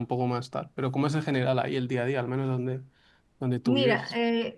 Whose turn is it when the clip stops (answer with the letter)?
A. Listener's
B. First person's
A